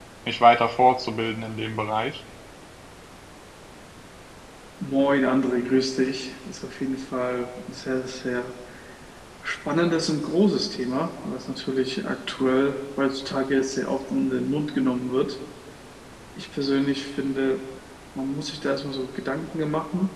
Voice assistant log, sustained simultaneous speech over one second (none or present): none